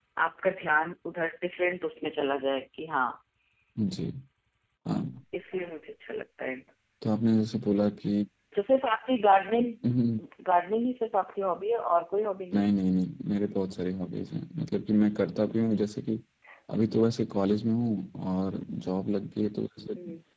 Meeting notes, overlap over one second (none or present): none